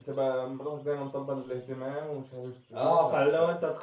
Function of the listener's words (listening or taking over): taking over